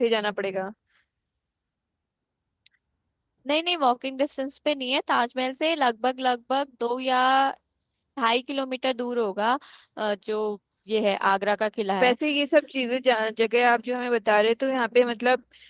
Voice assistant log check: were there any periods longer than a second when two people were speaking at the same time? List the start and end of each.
none

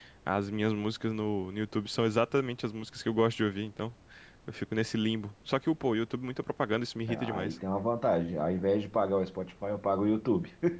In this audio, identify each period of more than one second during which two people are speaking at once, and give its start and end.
none

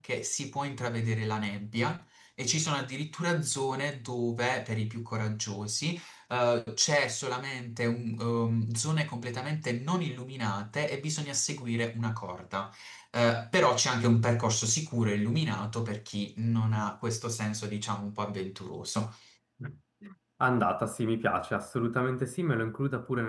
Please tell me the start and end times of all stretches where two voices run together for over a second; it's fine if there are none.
none

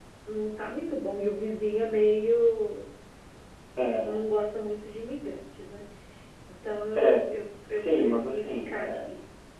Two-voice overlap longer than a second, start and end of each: 7.7-9.1

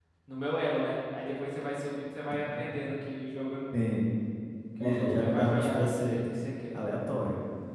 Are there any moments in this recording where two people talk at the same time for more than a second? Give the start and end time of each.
4.8-6.2

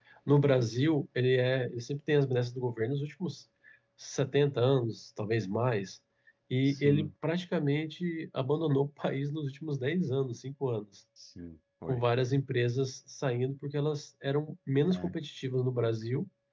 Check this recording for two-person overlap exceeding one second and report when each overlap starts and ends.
none

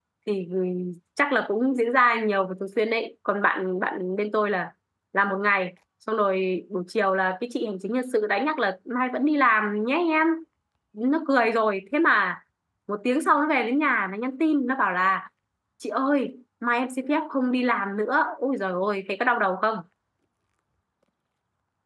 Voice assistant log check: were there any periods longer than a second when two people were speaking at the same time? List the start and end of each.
none

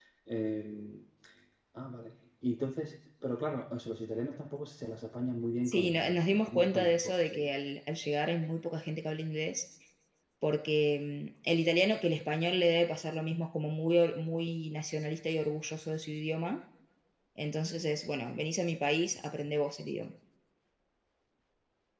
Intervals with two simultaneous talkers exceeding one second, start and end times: 5.6-7.5

